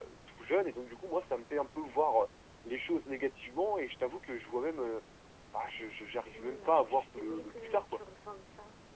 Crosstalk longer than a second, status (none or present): present